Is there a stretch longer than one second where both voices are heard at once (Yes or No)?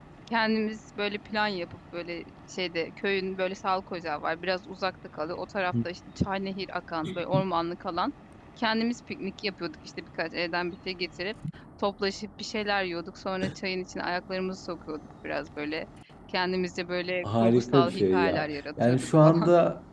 Yes